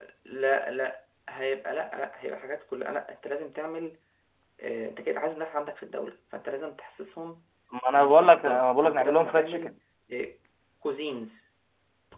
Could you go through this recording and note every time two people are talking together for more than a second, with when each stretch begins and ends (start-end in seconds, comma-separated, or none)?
8.0-9.8